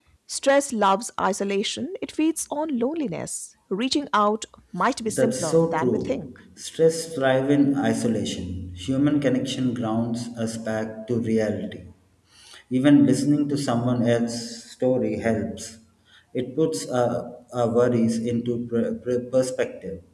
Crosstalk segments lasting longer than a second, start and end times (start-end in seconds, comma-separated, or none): 5.0-6.3